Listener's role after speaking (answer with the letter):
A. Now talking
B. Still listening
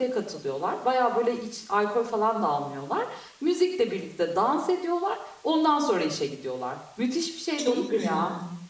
A